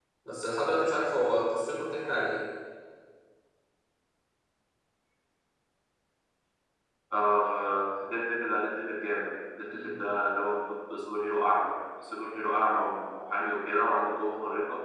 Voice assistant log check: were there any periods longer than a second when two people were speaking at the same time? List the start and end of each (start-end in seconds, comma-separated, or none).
none